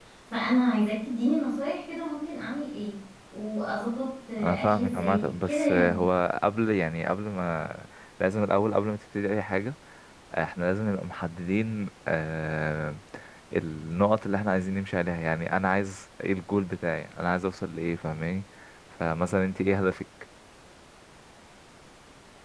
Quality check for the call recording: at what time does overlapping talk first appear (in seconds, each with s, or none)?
4.4 s